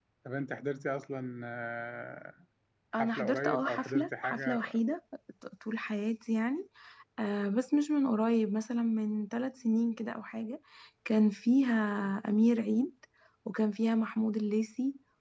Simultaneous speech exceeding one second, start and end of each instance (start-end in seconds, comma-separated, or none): 3.0-4.6